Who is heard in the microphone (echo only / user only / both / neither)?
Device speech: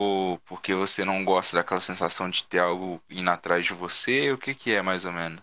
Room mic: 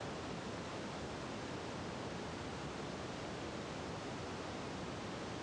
neither